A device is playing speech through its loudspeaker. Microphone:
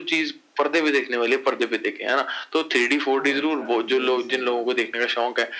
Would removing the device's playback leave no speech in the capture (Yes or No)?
No